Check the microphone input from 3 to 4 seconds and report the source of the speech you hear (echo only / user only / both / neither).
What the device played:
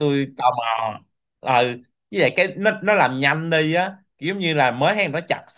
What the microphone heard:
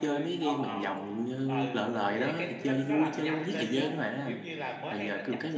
both